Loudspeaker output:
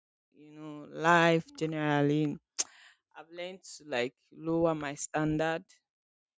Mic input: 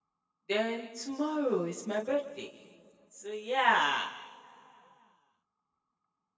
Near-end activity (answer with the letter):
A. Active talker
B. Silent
A